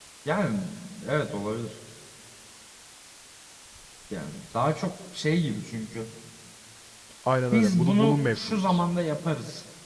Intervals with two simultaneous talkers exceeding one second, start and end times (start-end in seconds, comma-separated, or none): 7.5-8.8